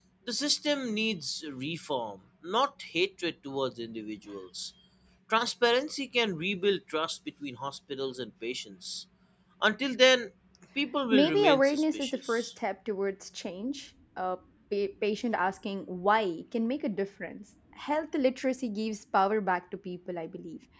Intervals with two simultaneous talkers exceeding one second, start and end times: 11.1-12.5

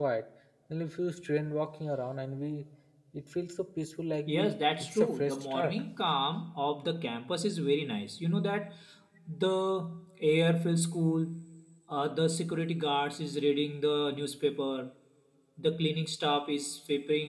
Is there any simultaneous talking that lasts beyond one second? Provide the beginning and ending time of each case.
4.3-5.8

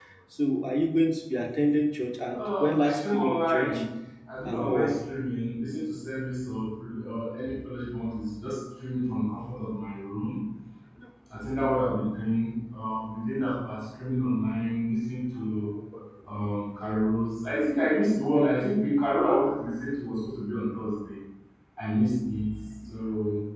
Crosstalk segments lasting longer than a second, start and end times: 2.3-3.7

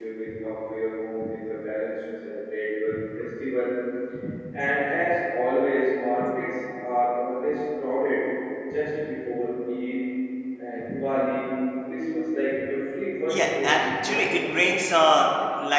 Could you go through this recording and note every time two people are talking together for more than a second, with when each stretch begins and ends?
13.3-14.7

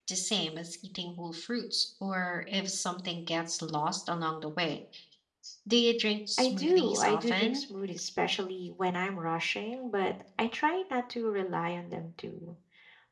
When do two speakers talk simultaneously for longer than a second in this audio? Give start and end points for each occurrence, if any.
6.4-7.6

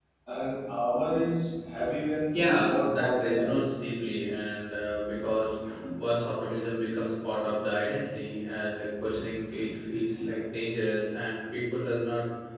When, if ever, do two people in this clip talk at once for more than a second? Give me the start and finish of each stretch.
2.3-3.7

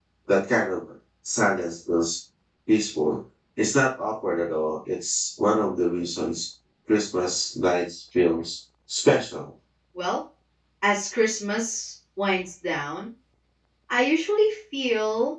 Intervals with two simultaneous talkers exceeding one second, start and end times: none

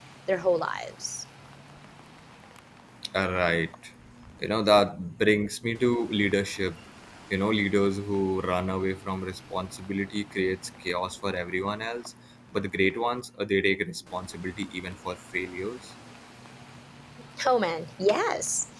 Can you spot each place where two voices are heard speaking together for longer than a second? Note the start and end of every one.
none

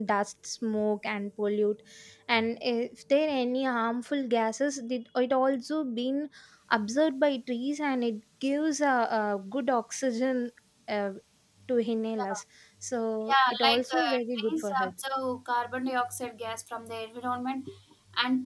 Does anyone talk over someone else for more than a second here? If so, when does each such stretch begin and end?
13.3-14.9

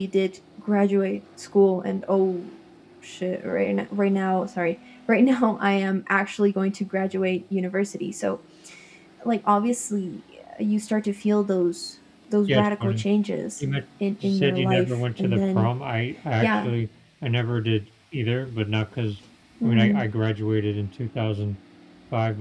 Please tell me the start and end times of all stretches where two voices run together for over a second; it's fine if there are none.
14.2-15.7

